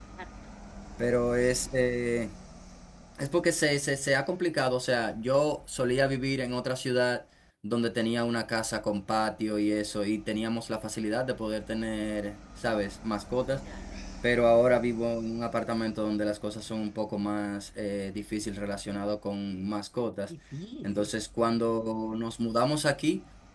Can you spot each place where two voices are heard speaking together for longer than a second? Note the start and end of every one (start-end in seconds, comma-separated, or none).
none